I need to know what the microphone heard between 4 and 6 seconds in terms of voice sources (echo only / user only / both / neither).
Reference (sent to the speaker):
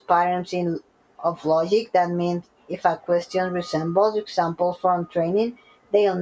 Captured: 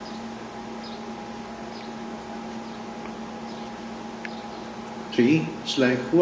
user only